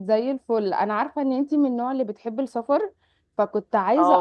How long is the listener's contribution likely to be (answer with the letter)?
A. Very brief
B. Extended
A